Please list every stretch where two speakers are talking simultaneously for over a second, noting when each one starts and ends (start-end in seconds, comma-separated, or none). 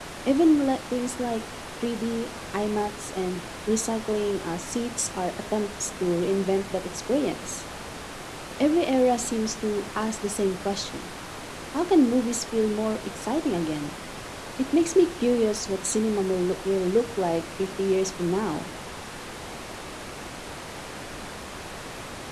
none